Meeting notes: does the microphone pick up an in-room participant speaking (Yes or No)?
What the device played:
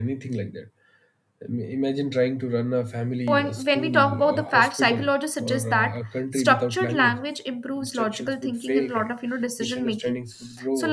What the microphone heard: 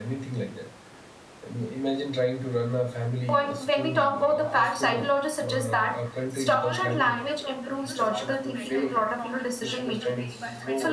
Yes